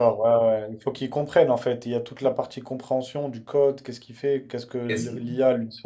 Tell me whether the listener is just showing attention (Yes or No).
Yes